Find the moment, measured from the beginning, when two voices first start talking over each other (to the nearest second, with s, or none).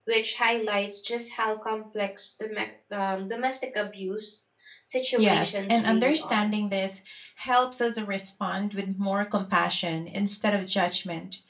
5 s